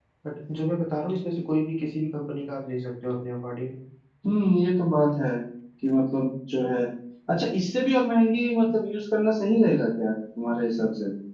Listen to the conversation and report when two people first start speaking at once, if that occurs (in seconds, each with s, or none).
none